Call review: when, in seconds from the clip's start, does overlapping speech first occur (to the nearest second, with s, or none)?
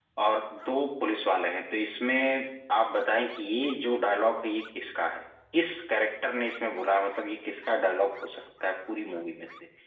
none